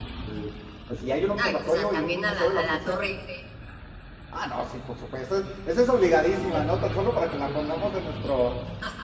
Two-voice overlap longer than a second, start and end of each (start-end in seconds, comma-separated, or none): 1.3-3.0